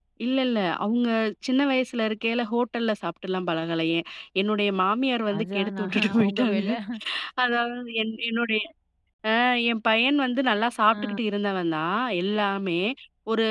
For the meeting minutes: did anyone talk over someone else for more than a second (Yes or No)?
Yes